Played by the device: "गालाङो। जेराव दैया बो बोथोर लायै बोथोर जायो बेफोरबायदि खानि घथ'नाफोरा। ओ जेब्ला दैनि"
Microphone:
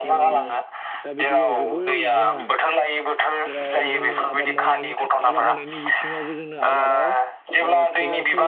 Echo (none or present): present